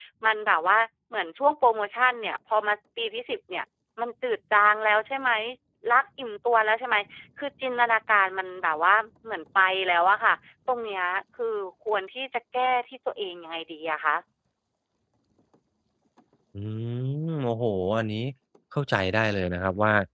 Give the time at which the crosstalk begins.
none

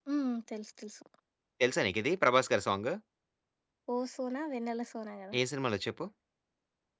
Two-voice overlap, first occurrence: none

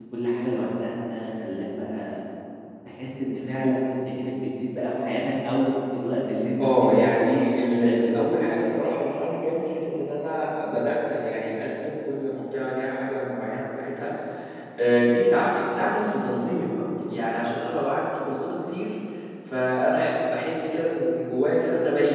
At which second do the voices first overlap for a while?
7 s

